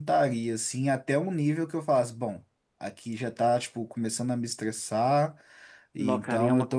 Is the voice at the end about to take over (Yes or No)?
Yes